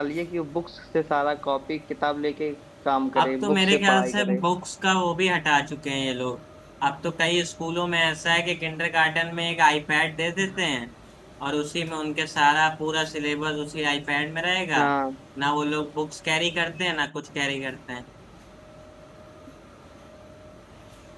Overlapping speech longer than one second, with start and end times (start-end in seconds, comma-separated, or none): 3.2-4.4